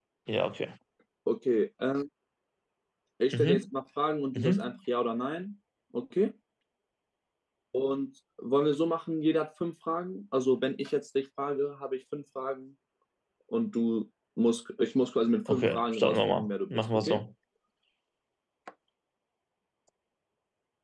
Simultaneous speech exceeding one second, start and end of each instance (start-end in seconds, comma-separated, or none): 15.5-17.2